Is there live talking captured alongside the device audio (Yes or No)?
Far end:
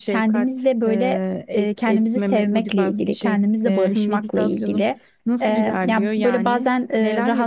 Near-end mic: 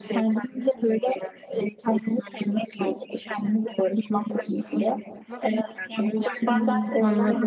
Yes